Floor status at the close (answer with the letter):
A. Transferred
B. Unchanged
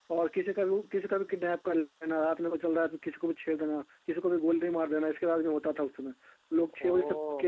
B